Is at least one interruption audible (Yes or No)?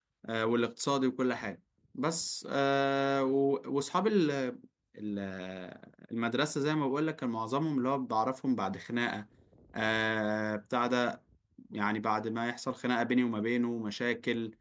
No